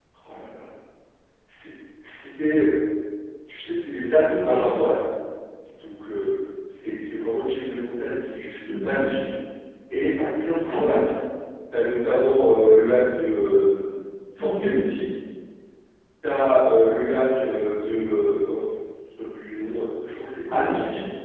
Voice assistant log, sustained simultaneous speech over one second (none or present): none